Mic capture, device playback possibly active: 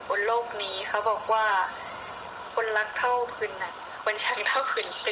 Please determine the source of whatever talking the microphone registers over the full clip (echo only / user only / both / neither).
echo only